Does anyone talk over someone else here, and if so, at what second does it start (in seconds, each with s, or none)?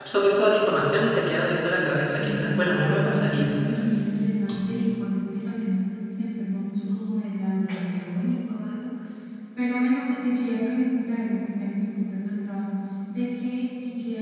1.9 s